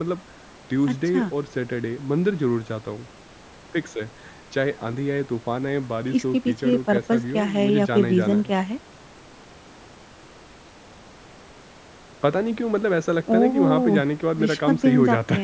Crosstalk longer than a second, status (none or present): present